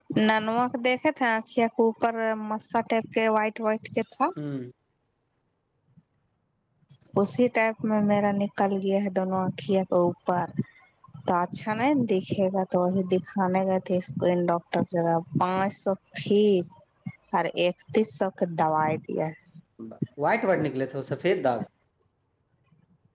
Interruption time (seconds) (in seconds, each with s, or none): none